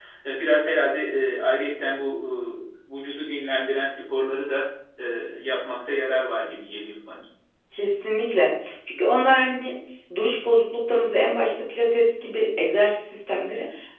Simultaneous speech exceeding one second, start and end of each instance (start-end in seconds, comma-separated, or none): none